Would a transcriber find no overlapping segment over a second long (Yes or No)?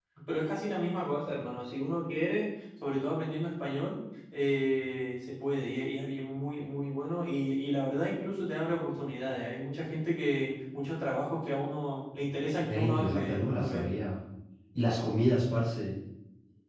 No